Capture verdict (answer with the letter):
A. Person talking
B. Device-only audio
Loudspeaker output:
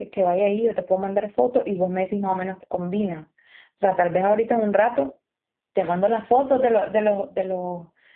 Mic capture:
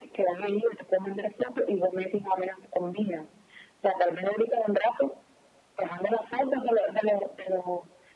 B